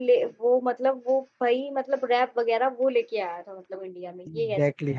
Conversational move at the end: taking over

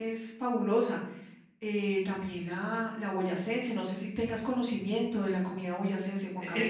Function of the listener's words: taking over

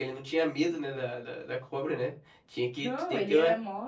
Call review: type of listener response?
taking over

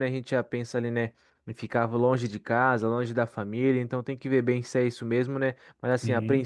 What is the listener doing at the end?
listening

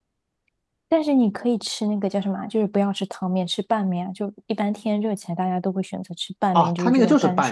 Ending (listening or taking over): taking over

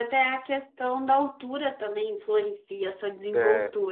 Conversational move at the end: taking over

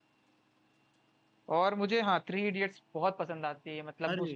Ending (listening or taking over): listening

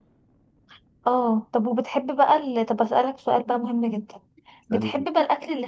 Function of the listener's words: listening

